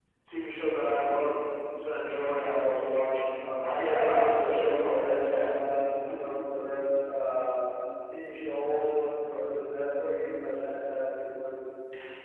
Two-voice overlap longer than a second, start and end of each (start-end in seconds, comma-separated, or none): 3.7-5.5